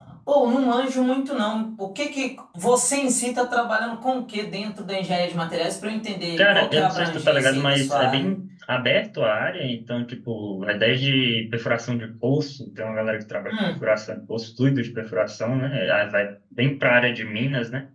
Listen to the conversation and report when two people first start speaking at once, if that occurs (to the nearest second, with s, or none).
6 s